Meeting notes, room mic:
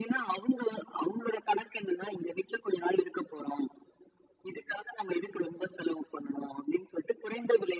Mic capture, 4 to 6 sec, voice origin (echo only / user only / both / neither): echo only